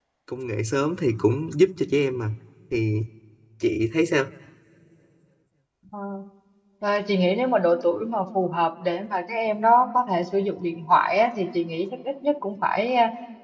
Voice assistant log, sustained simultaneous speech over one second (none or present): none